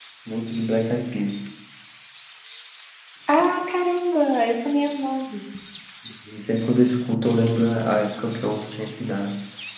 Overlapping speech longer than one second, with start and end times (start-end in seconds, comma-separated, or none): none